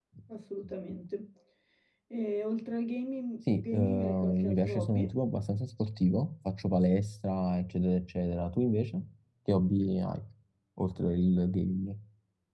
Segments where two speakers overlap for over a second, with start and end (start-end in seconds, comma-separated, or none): 3.5-5.1